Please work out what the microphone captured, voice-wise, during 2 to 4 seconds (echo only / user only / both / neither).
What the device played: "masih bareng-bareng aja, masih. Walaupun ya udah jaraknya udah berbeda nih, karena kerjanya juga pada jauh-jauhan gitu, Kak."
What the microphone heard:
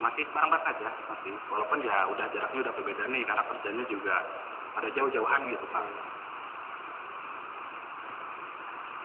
echo only